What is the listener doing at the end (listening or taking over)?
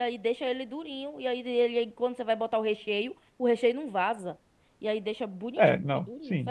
taking over